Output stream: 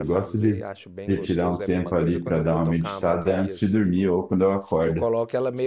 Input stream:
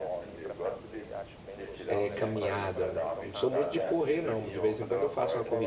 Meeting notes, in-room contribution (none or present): present